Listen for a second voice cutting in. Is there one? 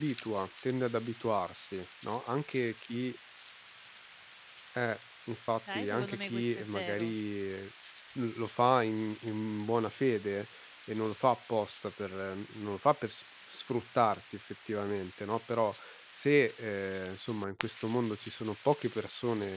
Yes, from 5.7 s

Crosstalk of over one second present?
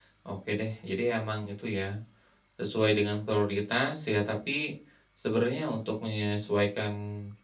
No

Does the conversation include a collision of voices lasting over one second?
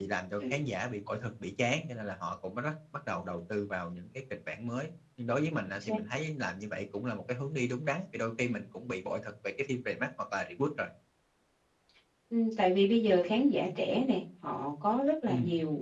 No

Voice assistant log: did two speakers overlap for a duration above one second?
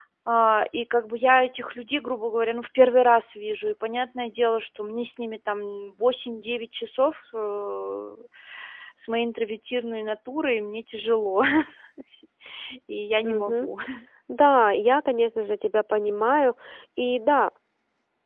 No

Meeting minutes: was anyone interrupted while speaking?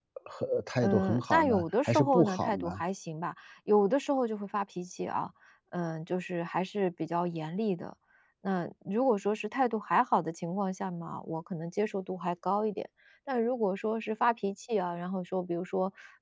Yes, from 0.8 s

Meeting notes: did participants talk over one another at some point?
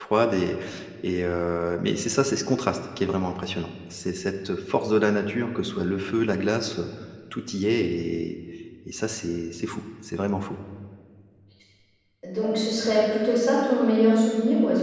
No

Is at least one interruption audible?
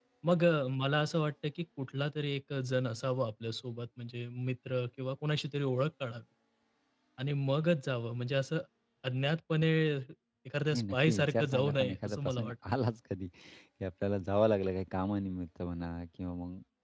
Yes, from 10.7 s

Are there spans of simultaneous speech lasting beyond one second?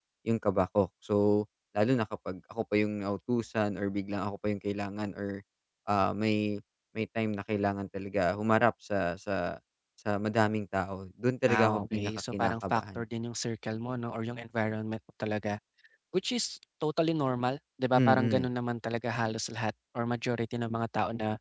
Yes, from 11.5 s

